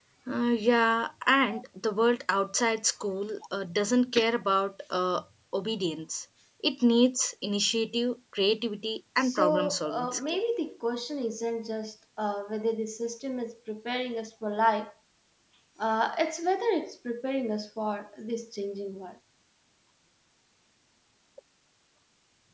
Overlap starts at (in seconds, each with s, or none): 9.2 s